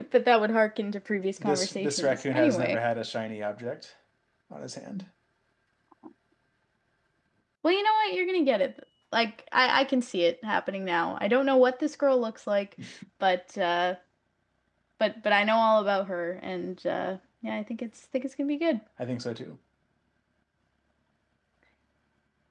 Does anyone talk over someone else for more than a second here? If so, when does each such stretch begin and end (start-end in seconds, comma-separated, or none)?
1.4-2.8